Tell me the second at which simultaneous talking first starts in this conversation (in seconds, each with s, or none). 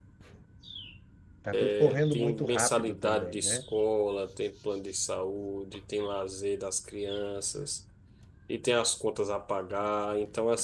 1.6 s